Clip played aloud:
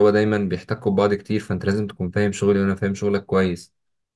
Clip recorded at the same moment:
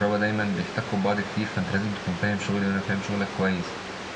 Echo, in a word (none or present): present